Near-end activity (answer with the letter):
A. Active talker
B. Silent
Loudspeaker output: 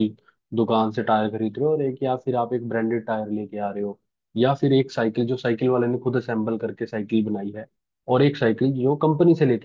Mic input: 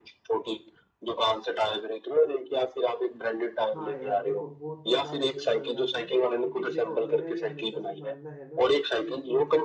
A